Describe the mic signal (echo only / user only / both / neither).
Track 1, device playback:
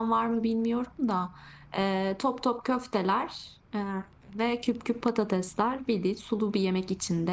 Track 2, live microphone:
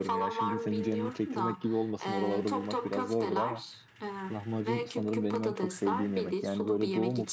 both